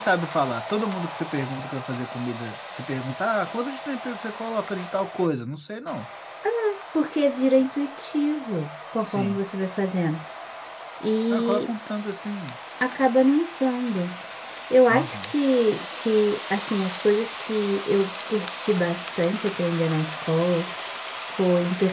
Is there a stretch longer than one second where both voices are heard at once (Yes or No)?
No